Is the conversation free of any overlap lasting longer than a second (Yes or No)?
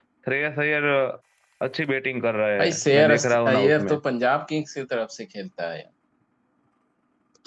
No